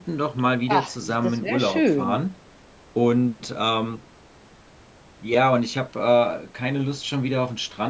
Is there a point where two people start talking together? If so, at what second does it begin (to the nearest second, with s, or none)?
1 s